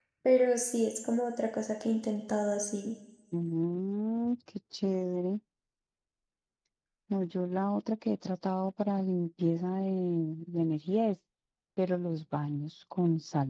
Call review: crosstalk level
none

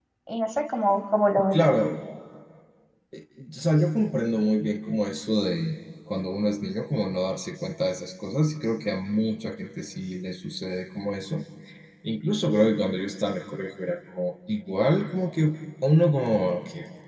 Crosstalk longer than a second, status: none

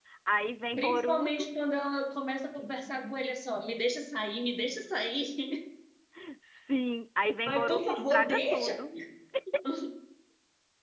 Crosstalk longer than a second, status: present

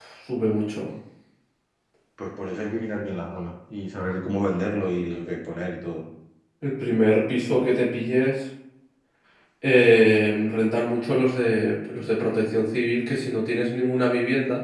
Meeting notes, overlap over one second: none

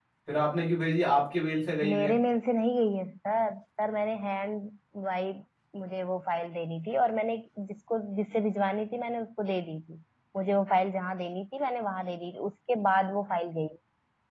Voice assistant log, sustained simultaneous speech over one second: none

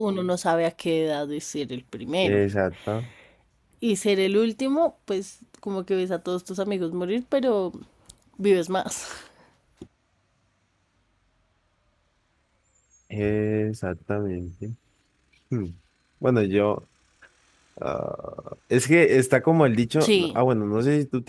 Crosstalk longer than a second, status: none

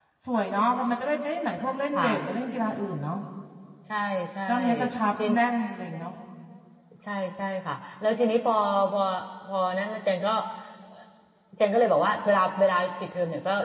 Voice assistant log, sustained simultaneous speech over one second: none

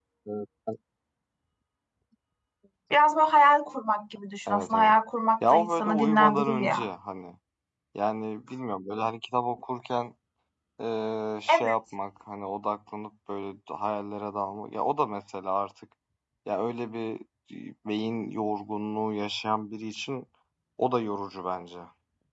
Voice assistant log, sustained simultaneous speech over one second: present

